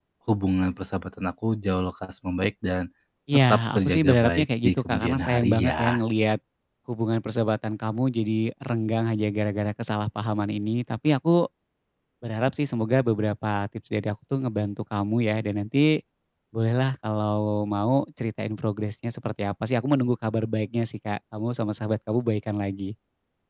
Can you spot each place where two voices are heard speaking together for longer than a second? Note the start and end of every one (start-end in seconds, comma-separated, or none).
3.3-6.0